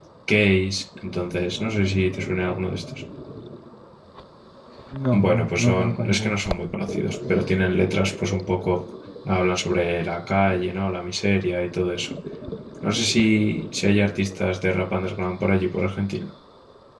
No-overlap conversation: No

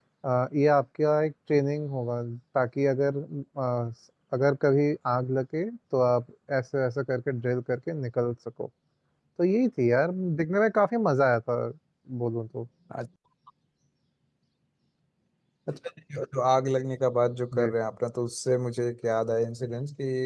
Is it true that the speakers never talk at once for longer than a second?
Yes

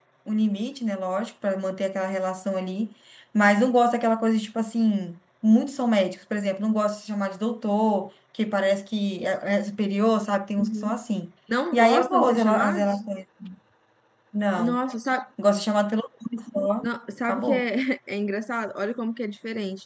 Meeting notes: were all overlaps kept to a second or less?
No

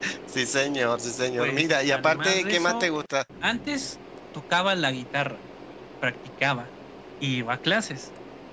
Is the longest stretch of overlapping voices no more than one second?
No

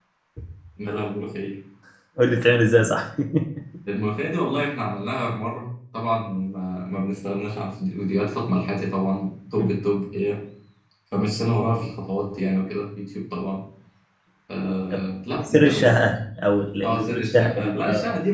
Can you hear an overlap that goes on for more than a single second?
Yes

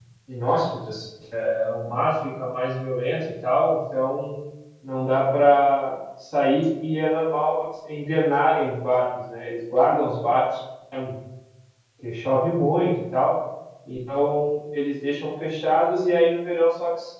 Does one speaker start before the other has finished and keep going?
No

